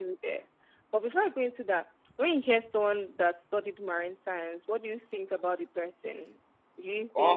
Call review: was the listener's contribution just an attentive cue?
Yes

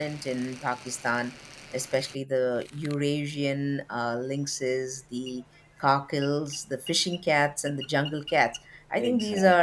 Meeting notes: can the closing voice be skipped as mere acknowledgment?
Yes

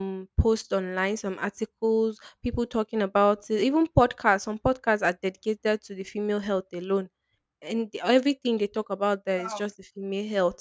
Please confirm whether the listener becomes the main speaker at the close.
No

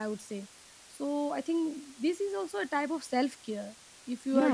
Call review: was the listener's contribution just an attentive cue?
No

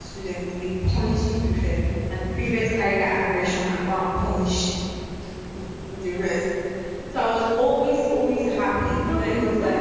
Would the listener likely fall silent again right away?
No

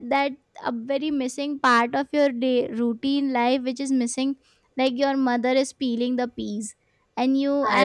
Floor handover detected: No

